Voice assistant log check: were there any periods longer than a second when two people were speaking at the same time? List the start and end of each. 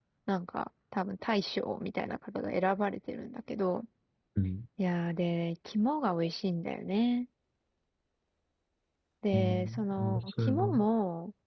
9.3-10.8

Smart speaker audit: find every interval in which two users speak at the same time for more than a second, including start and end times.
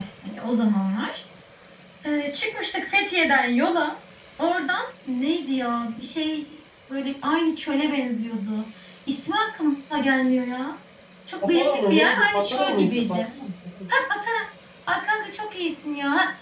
11.4-13.2

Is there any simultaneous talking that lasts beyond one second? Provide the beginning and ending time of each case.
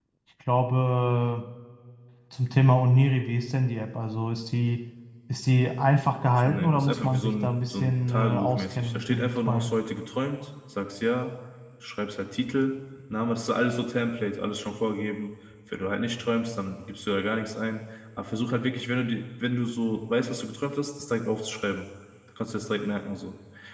6.4-9.7

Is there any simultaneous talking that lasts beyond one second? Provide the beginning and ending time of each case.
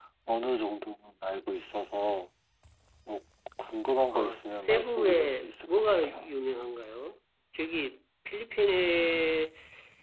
4.1-6.3

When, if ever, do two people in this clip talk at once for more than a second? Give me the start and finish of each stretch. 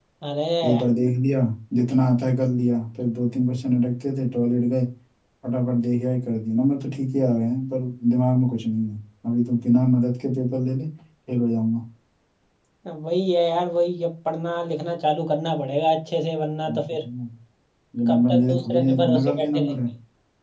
18.1-19.7

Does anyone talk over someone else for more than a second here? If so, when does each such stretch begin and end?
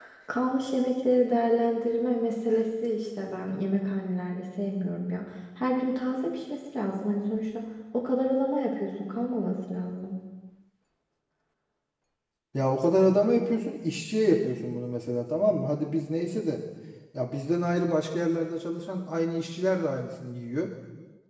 none

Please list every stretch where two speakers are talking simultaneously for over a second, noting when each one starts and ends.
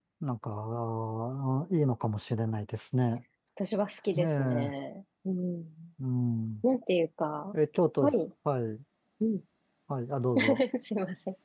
none

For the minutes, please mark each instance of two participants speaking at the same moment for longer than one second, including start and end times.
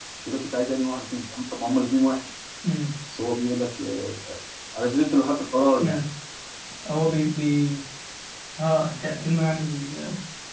none

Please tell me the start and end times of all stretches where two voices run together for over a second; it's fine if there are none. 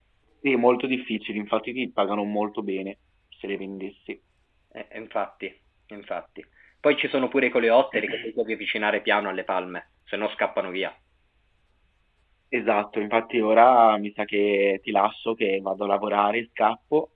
none

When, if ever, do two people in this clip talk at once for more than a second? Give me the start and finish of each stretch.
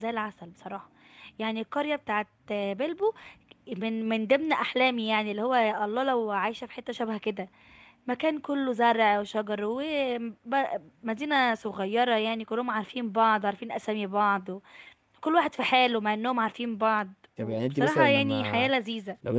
17.4-18.7

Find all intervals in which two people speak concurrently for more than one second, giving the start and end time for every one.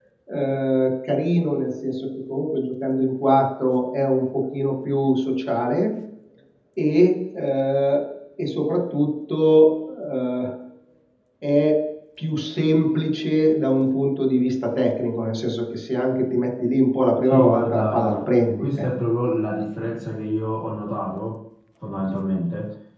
17.2-18.9

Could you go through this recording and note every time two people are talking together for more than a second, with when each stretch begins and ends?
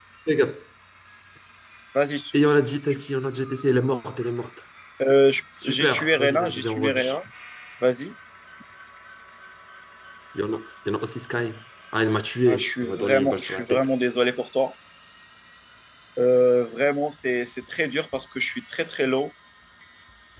5.6-7.2, 12.5-13.9

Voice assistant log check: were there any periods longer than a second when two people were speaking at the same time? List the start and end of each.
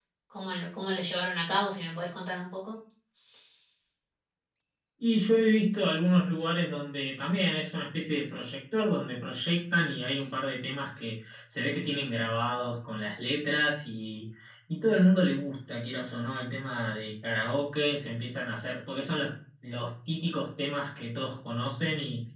none

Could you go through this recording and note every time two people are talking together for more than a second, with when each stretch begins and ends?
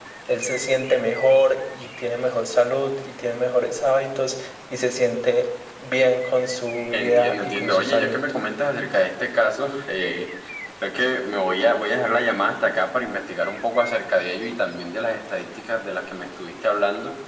6.9-8.2

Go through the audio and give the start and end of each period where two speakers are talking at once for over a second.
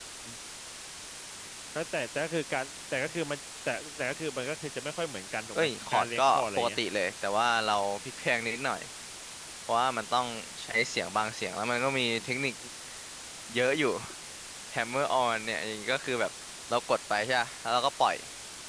5.5-6.8

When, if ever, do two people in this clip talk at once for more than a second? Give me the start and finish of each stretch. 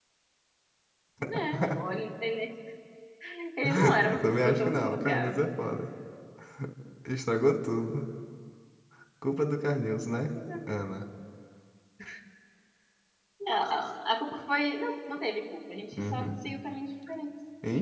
4.1-5.5

